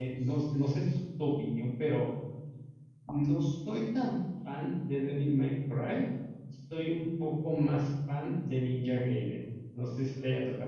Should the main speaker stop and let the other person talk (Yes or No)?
Yes